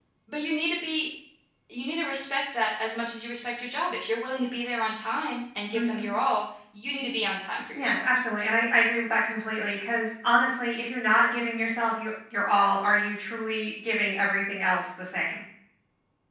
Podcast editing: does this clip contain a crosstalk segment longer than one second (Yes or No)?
No